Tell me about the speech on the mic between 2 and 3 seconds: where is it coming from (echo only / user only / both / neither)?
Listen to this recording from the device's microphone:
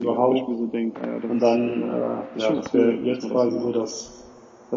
both